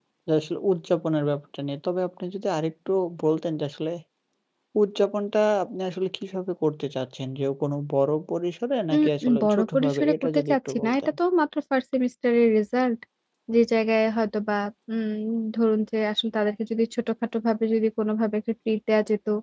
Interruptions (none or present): present